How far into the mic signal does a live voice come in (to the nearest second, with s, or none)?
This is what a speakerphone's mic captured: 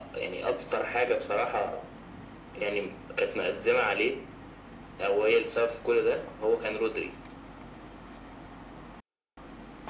none